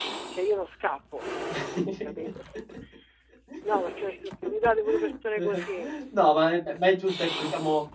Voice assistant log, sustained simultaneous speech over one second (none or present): none